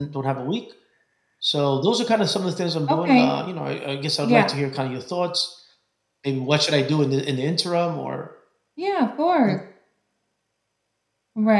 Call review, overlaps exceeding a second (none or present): none